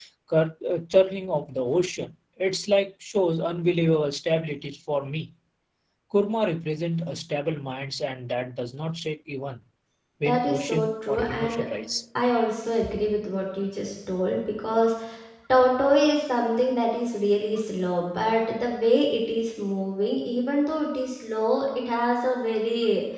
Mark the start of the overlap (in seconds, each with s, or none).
10.2 s